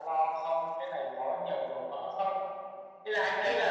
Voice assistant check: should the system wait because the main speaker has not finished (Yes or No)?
Yes